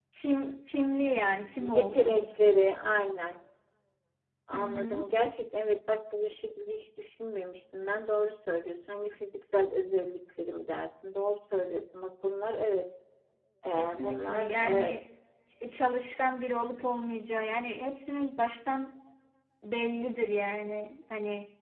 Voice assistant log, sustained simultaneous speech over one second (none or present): present